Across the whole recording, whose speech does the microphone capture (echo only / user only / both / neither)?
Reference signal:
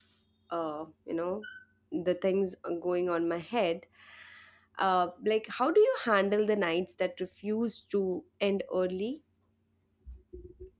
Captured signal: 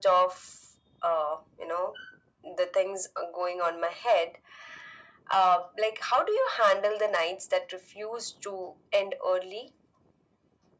echo only